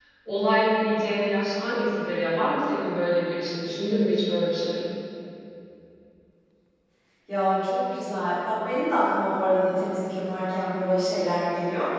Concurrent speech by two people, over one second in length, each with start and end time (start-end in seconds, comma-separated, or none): none